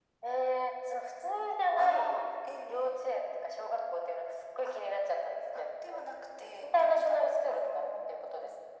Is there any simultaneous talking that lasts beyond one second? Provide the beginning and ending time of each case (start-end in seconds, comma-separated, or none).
6.6-7.9